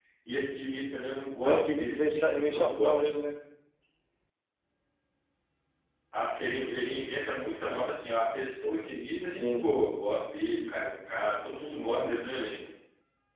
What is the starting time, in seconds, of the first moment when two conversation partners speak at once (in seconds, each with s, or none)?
1.4 s